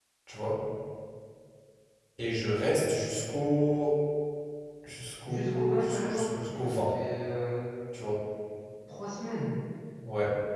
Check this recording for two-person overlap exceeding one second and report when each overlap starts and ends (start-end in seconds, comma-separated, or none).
5.3-6.9